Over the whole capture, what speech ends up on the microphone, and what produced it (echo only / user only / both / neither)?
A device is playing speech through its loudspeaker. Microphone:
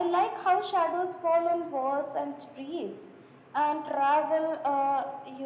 echo only